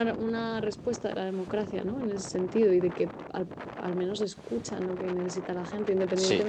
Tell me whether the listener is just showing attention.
Yes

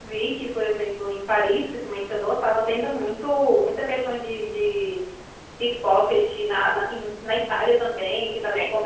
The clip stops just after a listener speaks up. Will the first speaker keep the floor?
Yes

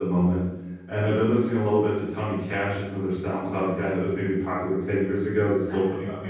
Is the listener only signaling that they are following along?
No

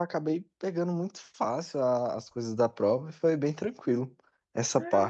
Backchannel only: No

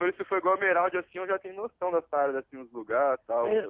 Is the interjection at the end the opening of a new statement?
Yes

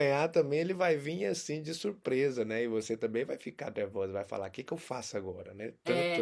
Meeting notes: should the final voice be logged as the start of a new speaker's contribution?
Yes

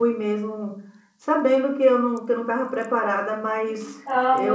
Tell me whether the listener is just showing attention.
Yes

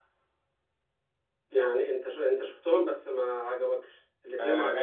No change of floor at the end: No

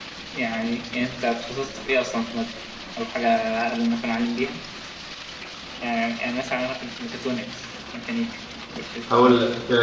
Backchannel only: No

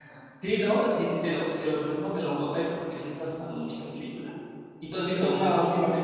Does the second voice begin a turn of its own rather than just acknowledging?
No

